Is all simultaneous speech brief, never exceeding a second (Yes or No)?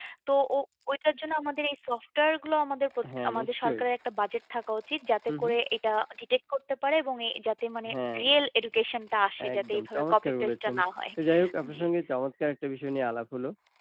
No